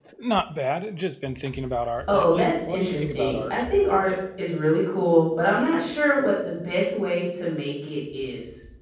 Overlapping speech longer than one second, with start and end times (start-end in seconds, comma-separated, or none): 2.1-3.6